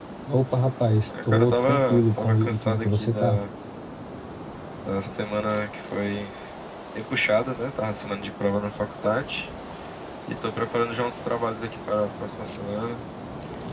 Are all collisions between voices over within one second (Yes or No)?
No